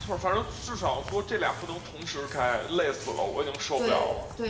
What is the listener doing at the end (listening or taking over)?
taking over